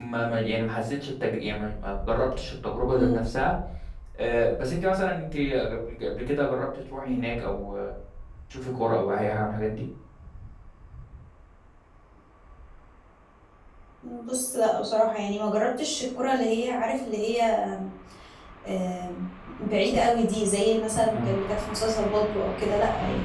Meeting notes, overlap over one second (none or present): none